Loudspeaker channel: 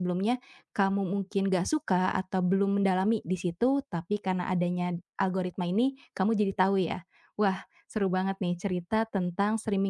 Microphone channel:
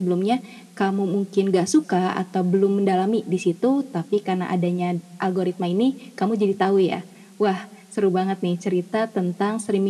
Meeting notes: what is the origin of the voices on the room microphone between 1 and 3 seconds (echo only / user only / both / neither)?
echo only